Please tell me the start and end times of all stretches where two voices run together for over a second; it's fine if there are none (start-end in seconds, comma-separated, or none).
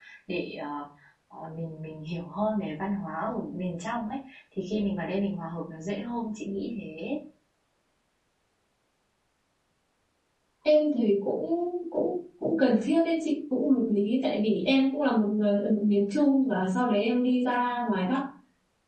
none